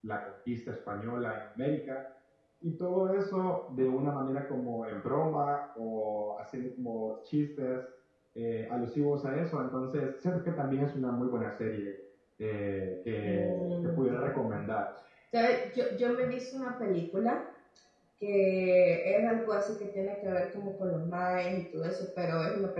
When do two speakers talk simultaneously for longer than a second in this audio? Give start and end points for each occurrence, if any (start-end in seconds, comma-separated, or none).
13.2-14.6